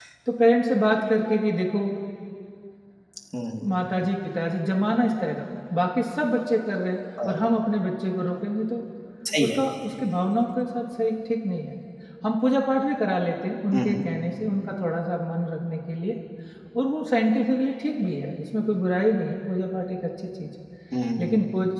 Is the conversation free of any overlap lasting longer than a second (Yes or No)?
Yes